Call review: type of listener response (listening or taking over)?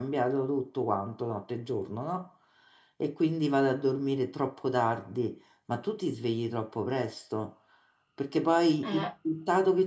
listening